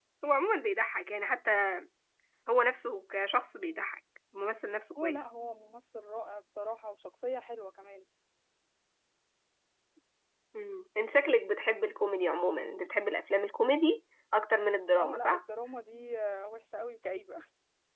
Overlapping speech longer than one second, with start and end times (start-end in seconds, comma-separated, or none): none